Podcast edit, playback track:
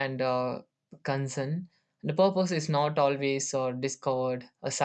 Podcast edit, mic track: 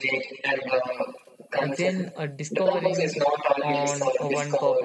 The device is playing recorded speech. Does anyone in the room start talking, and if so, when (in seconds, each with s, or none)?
1.6 s